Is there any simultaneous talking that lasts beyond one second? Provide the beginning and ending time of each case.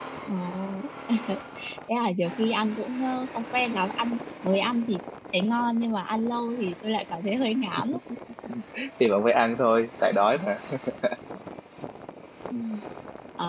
none

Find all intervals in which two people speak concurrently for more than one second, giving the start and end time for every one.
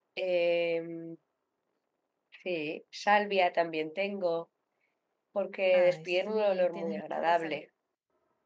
5.7-7.6

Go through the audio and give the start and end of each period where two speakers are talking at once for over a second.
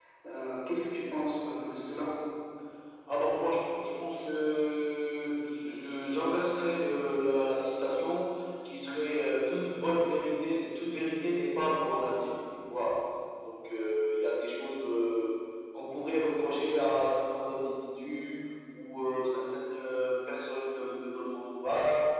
none

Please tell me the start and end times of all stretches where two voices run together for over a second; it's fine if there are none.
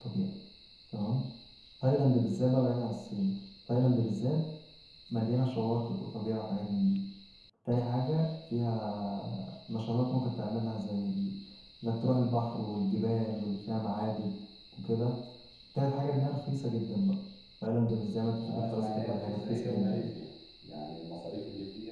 18.4-20.1

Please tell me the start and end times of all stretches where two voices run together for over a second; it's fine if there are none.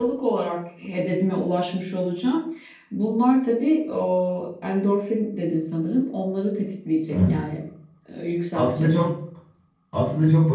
none

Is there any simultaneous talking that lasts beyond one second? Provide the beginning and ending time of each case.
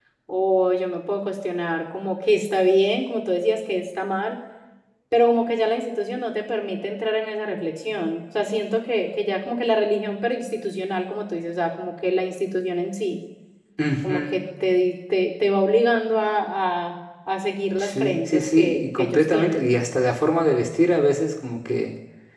17.8-19.7

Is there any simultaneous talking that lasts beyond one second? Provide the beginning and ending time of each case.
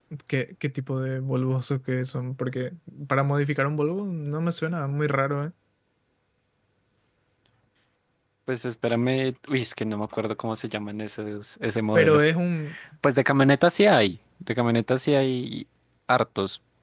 none

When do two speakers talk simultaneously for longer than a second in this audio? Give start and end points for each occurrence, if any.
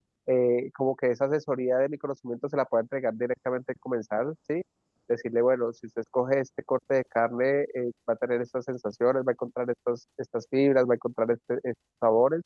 none

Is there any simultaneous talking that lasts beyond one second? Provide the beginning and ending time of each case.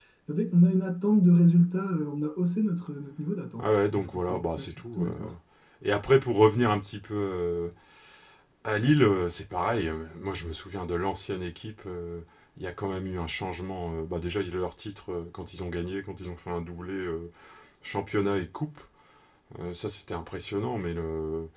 3.6-5.1

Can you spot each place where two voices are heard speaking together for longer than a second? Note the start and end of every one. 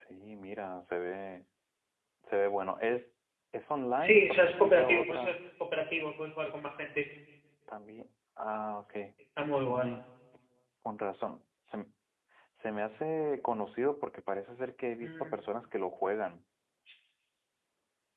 4.0-5.3

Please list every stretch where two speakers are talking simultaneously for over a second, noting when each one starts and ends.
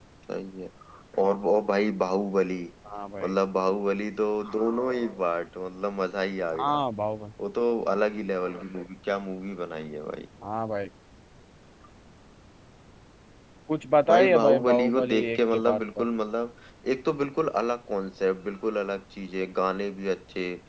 14.1-16.0

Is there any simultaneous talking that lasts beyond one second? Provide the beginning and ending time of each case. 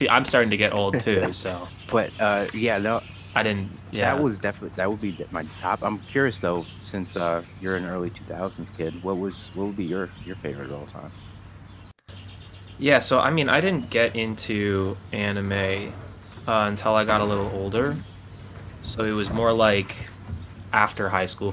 none

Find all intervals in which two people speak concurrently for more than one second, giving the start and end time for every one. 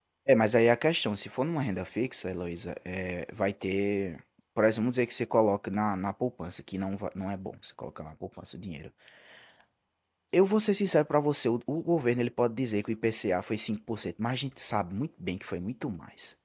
none

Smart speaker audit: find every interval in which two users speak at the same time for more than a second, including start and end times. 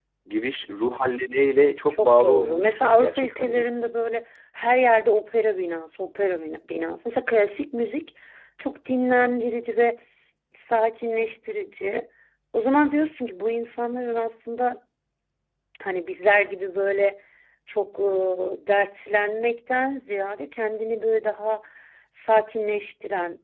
1.9-3.7

